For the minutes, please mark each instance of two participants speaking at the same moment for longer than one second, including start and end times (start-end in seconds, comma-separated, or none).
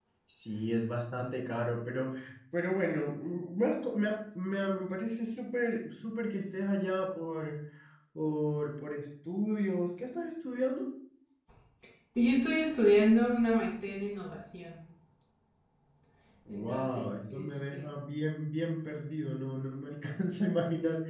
16.5-17.9